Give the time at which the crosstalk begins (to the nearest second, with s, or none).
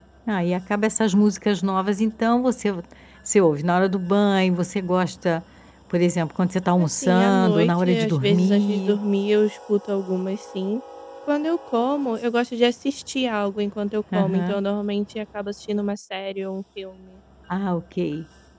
7 s